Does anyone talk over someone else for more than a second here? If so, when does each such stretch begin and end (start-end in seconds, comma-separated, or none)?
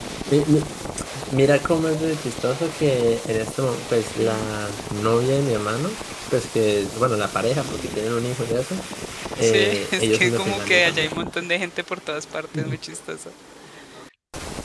9.4-11.1